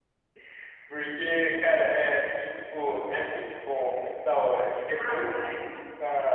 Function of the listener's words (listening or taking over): listening